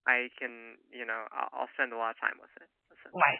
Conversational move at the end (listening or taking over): taking over